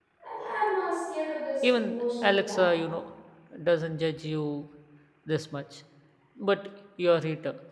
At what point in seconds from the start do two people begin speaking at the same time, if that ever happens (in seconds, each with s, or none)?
1.6 s